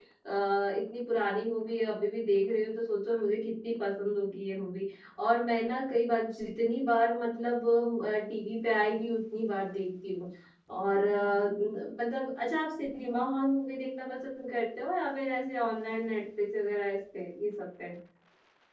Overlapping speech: No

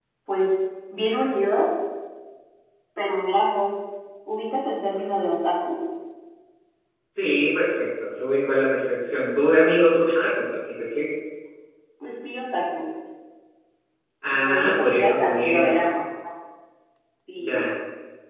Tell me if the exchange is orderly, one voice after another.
No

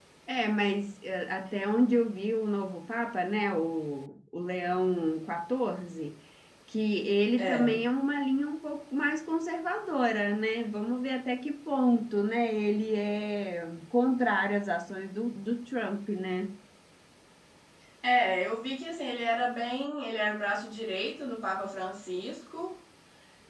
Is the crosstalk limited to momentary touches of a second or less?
Yes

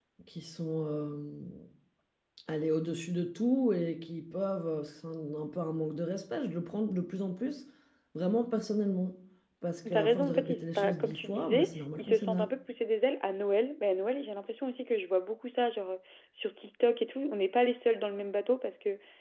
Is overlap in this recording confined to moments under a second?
No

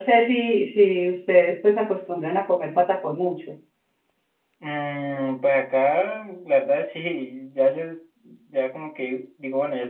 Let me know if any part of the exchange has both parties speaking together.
No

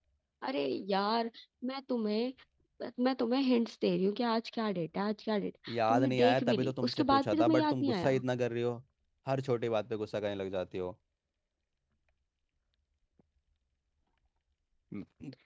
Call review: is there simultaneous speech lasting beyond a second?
Yes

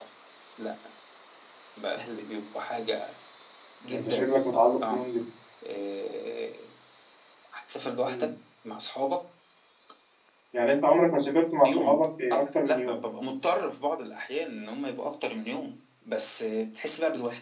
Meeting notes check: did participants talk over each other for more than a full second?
Yes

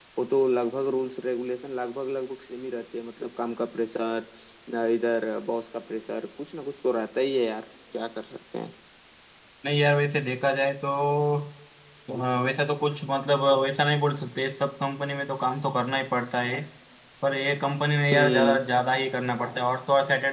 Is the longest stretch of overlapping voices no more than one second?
Yes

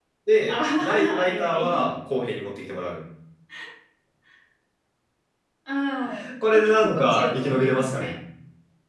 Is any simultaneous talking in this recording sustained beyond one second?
Yes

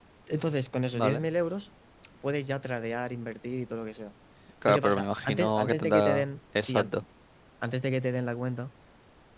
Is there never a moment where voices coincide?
No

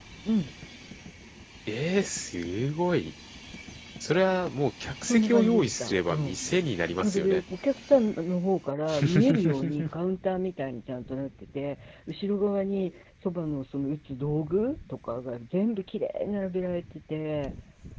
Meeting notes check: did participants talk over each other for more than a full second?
Yes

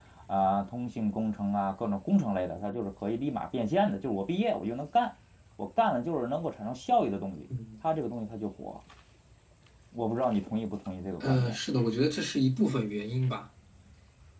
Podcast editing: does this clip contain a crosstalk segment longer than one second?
No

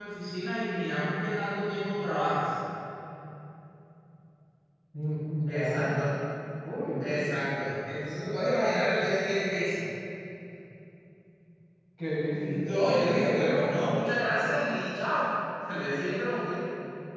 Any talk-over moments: Yes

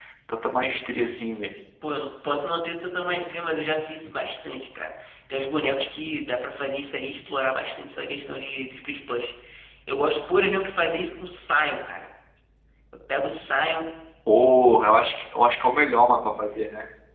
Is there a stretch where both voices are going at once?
No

